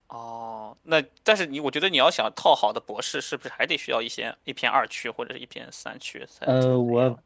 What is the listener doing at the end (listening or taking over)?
taking over